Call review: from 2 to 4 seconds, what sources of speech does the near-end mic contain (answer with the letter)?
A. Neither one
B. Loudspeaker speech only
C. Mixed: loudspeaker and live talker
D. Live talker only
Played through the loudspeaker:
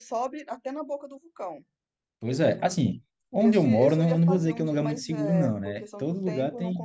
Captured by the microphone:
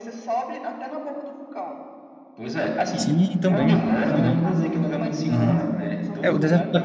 C